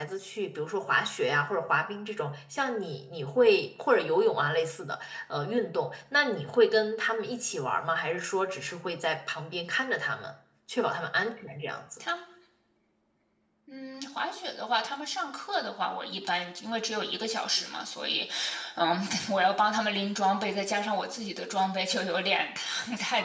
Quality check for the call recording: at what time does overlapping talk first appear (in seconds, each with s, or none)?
none